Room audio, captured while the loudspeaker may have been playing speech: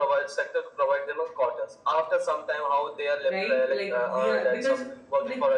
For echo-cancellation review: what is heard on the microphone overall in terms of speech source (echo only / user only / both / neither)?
both